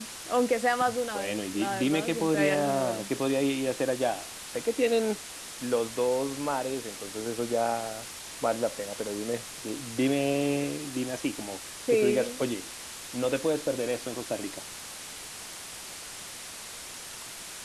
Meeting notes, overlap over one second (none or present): present